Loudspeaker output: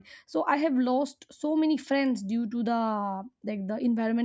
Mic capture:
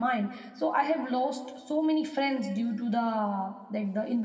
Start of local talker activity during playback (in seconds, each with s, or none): none